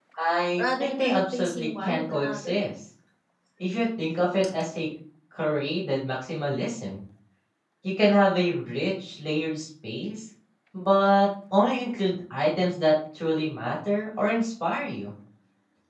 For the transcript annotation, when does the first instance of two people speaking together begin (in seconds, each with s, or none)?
0.6 s